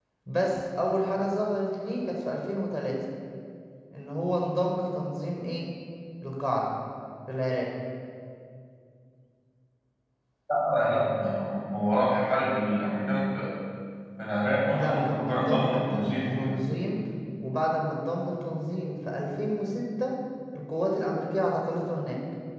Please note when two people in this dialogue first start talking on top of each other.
14.7 s

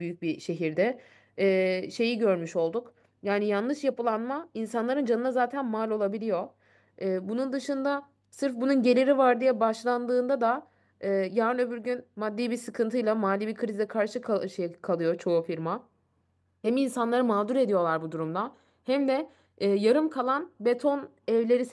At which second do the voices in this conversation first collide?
none

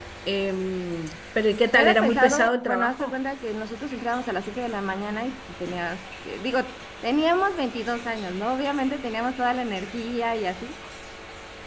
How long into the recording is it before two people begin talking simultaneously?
1.7 s

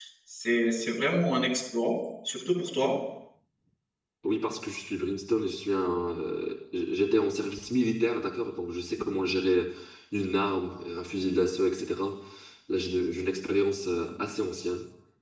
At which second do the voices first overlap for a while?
none

